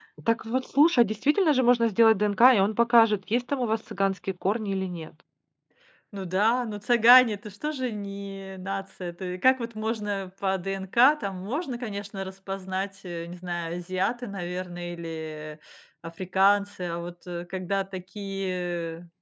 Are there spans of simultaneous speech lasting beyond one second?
No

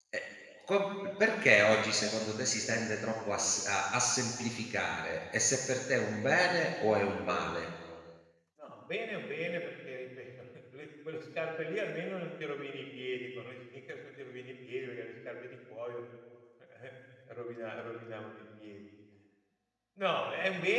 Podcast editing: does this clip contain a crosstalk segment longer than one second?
No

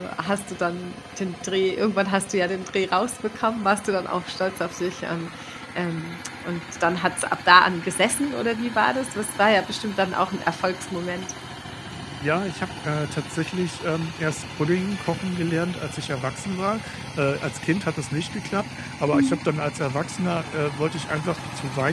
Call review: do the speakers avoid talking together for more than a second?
Yes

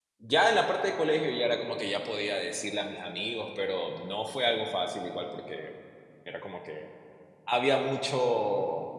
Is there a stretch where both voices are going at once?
No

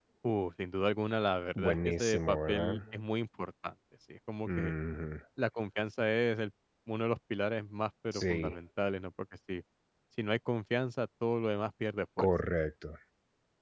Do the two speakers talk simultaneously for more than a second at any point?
Yes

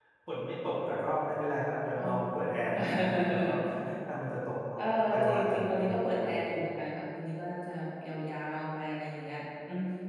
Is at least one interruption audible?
Yes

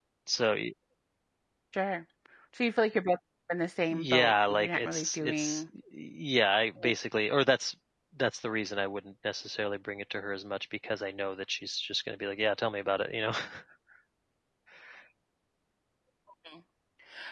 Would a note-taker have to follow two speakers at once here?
Yes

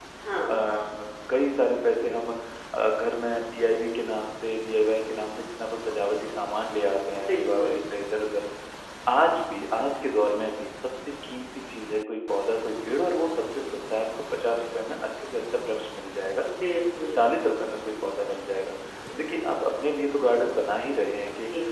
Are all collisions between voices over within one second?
Yes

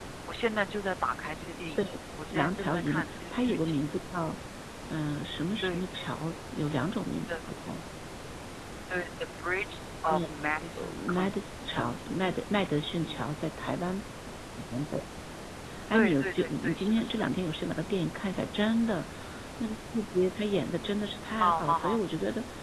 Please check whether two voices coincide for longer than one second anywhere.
Yes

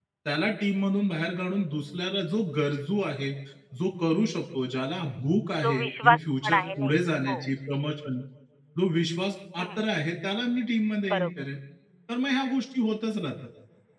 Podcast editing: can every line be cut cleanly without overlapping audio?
No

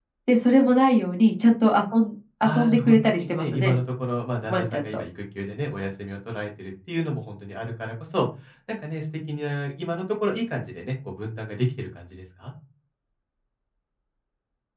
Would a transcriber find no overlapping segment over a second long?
No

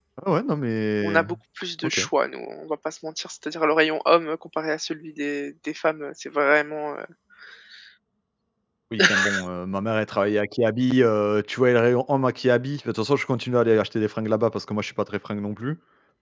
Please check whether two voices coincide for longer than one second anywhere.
No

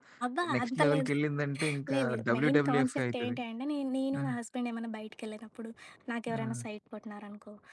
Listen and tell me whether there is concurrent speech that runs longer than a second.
Yes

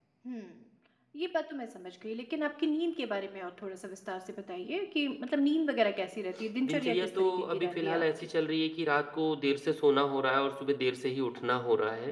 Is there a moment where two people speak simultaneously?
Yes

